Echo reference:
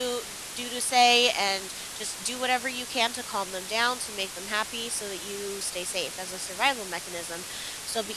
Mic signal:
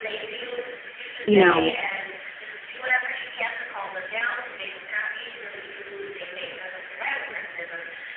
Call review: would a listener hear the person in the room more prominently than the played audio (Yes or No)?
Yes